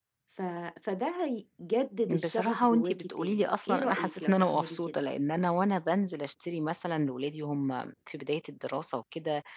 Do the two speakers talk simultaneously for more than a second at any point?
Yes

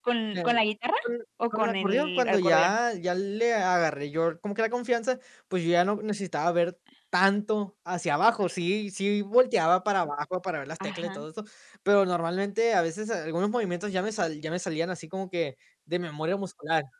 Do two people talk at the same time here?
Yes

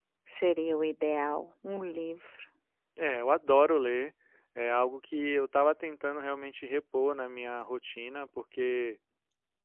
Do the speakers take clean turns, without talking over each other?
Yes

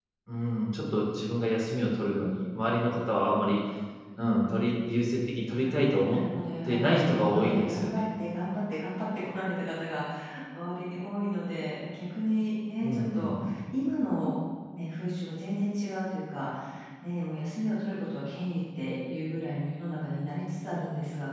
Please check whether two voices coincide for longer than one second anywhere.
Yes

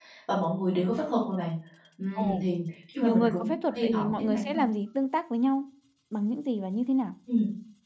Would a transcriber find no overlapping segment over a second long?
No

